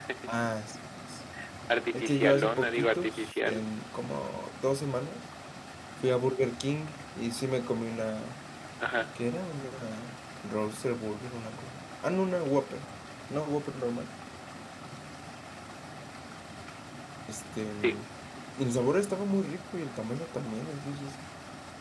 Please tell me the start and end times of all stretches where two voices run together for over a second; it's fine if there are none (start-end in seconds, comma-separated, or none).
1.9-3.6